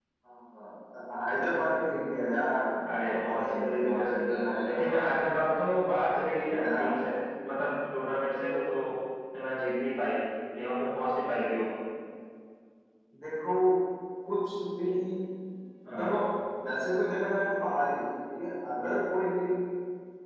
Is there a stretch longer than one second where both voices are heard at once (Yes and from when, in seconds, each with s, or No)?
Yes, from 2.9 s